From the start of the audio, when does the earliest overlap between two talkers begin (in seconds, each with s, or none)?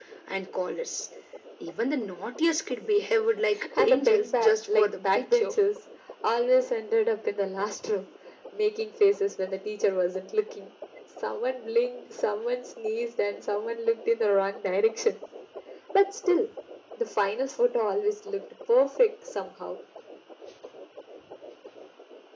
3.8 s